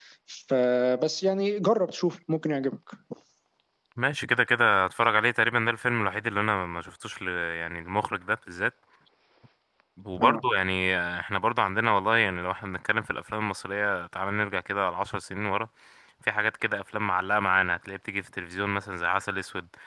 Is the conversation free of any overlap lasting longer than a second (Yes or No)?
Yes